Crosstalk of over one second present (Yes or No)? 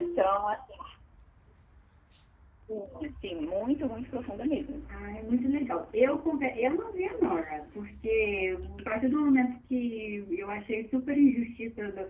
No